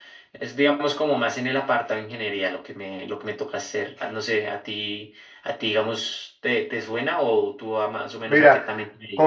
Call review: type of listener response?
taking over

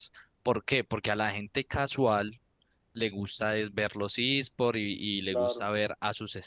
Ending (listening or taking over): listening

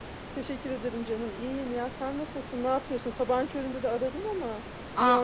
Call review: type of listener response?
taking over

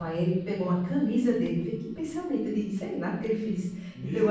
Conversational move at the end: listening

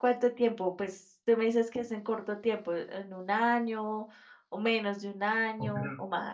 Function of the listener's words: taking over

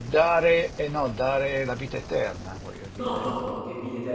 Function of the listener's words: taking over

